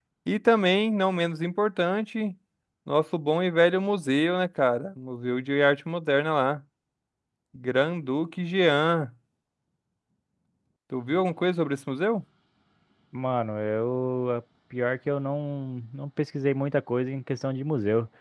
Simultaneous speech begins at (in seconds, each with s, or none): none